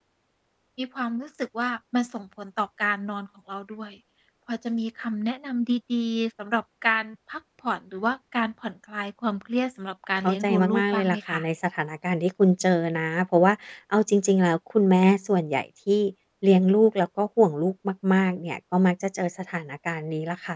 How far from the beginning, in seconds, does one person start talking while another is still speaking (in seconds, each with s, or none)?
10.2 s